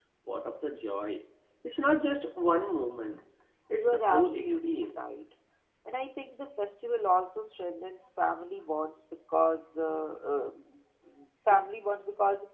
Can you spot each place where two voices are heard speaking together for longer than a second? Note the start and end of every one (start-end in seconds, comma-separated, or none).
3.7-5.1